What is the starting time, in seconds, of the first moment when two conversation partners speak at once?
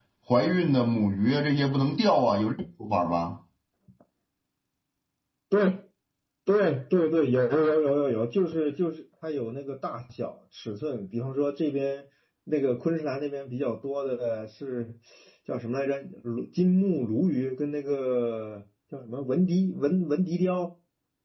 none

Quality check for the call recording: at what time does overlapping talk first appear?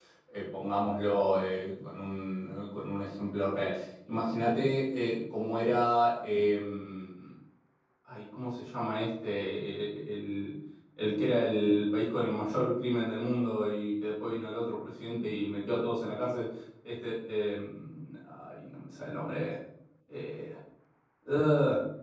none

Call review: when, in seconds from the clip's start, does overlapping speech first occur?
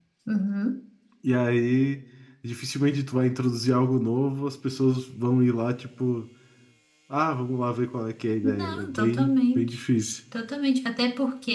8.4 s

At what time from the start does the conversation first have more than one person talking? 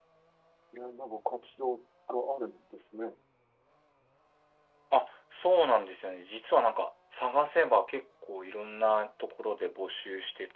none

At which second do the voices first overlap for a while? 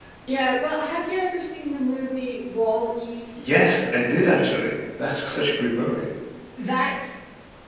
none

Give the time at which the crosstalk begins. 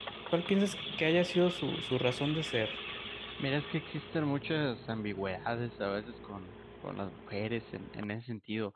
none

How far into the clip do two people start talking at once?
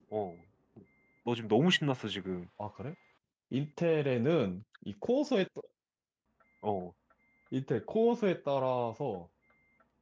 none

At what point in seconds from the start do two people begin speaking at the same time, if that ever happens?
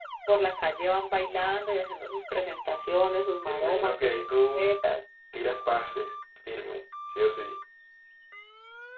3.5 s

